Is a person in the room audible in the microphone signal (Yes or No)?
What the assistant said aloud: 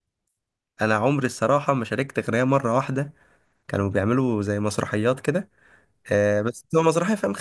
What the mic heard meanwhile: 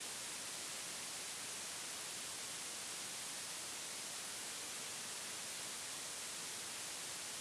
No